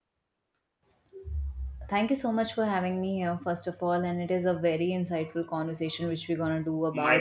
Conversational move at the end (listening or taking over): listening